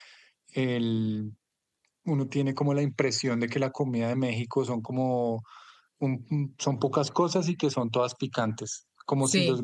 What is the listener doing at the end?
listening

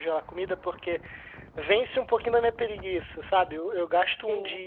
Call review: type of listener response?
listening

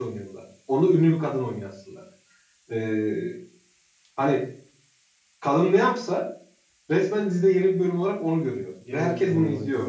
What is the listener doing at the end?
listening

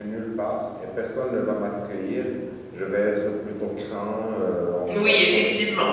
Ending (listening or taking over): taking over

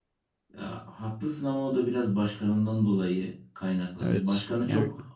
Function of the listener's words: listening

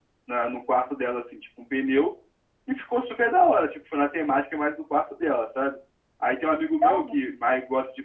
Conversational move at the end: listening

